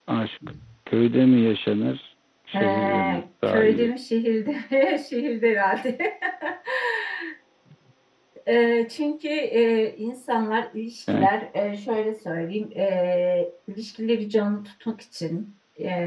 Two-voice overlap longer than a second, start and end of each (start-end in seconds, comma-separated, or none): 2.5-3.9